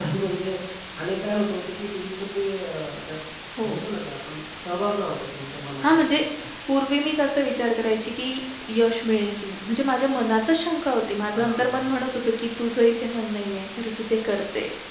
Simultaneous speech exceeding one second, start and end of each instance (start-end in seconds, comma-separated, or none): none